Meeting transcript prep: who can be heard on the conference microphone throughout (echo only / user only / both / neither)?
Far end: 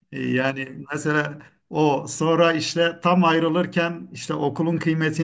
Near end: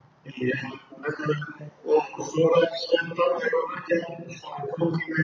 echo only